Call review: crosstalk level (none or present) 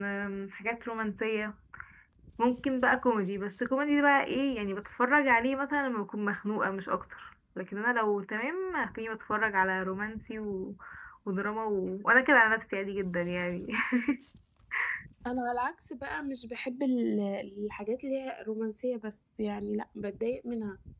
none